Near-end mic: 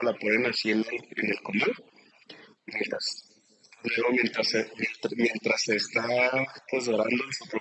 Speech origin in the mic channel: echo only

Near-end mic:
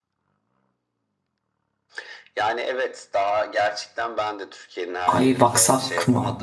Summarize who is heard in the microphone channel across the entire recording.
both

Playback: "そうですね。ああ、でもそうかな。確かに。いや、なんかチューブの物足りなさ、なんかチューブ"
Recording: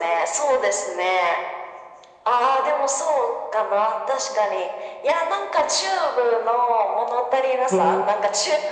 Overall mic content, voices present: both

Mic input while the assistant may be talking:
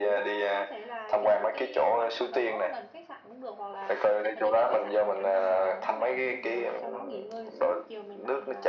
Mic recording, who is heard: both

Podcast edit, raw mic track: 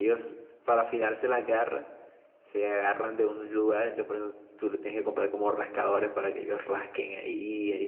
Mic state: user only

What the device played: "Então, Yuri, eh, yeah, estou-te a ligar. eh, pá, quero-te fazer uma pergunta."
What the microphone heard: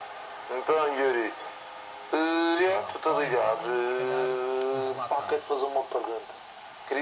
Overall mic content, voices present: both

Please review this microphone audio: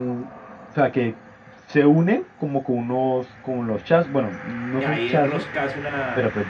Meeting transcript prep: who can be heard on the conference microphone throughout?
both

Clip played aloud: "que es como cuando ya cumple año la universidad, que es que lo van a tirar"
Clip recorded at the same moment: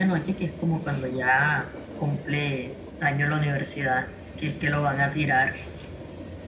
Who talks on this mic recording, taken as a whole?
echo only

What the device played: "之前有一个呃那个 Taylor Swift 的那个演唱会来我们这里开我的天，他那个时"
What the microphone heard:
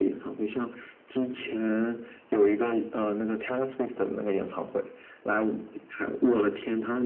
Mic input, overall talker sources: echo only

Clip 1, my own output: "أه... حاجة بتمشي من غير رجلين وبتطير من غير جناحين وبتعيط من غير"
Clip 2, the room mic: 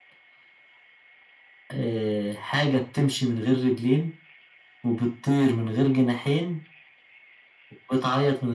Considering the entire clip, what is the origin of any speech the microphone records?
echo only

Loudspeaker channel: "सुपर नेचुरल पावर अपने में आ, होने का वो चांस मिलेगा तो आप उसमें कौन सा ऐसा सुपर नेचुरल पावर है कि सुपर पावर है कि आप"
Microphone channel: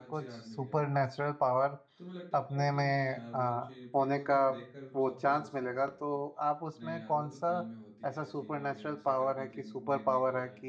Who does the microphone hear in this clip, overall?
both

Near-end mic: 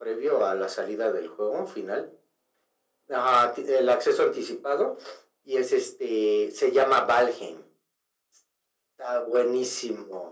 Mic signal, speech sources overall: echo only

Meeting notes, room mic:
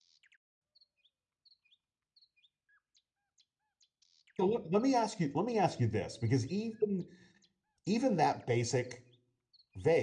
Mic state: user only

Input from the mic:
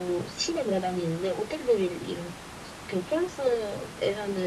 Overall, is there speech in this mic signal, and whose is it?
echo only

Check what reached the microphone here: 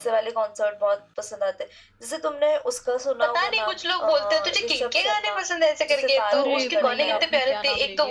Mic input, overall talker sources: both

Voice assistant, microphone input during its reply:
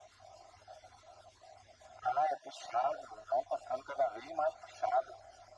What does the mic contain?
echo only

